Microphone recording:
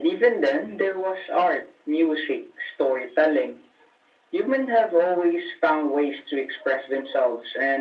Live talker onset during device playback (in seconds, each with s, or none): none